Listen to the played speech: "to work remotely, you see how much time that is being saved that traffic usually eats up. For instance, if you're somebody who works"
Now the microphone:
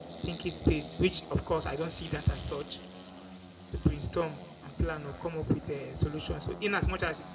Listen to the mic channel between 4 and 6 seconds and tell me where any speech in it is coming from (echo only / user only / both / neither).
user only